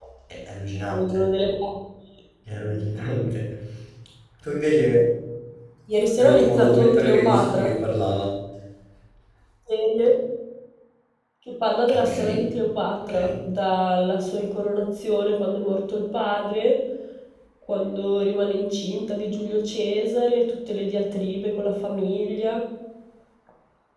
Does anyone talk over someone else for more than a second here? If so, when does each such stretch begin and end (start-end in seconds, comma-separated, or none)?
6.2-7.7